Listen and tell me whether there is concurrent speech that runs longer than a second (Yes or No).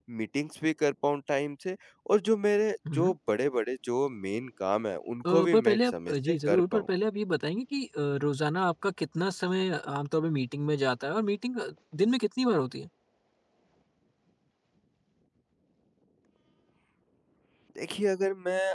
Yes